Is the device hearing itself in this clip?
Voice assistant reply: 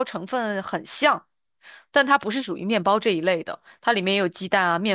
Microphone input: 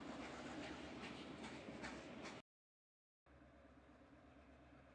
No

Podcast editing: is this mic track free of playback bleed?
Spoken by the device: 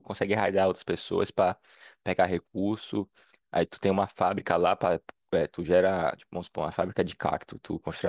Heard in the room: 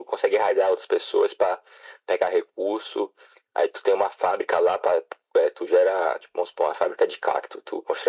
No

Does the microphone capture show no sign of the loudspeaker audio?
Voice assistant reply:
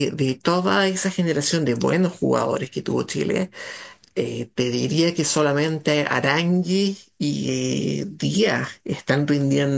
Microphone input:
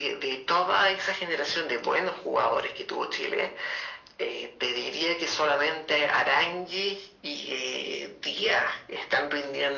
No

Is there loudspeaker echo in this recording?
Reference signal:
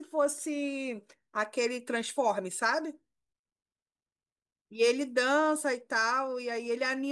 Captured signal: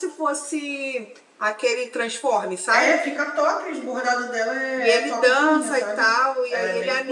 Yes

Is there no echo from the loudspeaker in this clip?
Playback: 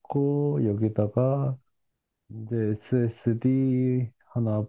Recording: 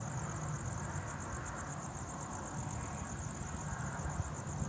Yes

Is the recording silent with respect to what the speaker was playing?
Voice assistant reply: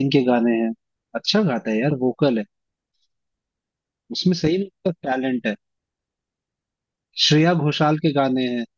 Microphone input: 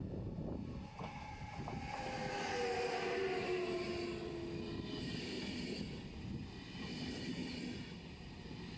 Yes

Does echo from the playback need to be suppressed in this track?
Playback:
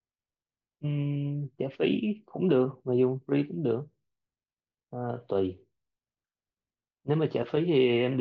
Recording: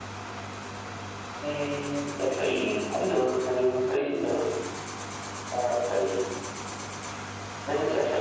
Yes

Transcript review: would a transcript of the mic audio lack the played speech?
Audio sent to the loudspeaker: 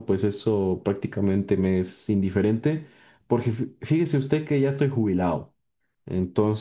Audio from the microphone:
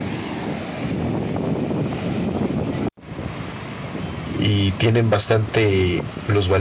Yes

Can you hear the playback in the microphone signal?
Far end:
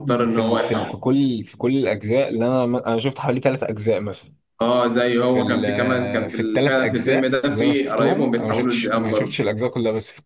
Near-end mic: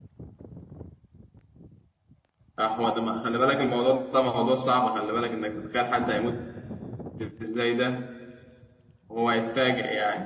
No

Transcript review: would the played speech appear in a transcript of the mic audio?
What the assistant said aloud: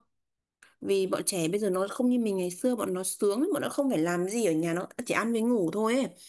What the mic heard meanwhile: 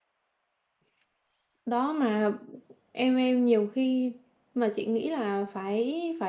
No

